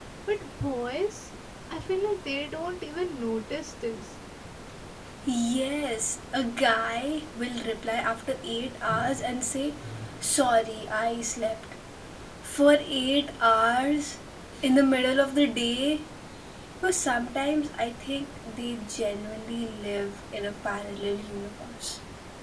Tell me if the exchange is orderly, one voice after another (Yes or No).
Yes